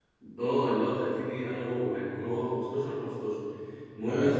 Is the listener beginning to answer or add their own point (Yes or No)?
No